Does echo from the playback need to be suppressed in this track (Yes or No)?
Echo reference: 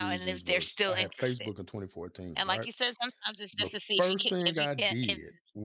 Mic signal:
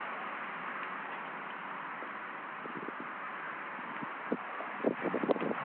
No